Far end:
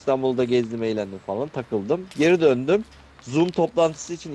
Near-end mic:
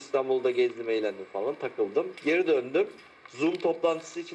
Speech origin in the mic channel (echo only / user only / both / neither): echo only